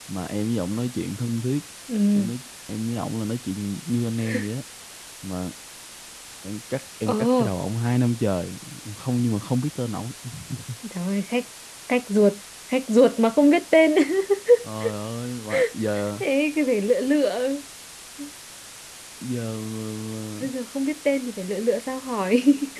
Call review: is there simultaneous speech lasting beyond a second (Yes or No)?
No